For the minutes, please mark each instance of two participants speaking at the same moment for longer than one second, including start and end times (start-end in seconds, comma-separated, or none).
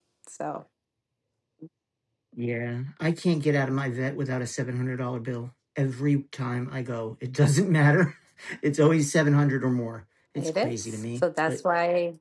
10.4-11.6